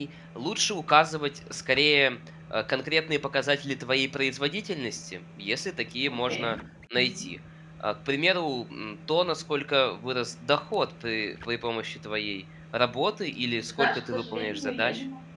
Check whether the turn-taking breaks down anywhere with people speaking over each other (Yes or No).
Yes